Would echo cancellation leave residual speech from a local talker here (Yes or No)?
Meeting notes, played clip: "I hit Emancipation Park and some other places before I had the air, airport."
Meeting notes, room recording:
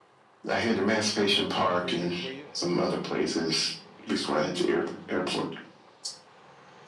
Yes